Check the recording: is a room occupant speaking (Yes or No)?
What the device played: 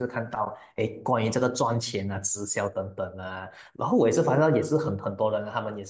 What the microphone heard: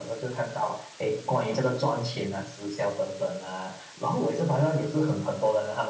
No